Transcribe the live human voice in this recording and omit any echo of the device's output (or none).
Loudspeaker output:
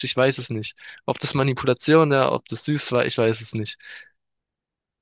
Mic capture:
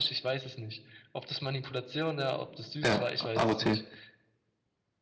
Ja, AOT.